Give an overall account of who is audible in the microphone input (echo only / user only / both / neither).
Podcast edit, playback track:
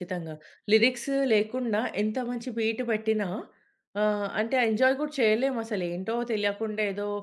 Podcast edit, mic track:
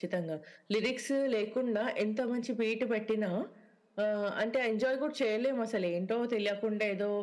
echo only